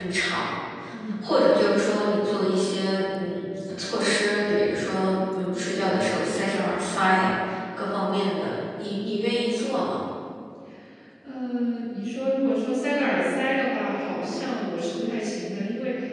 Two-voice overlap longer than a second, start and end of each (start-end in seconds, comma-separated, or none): none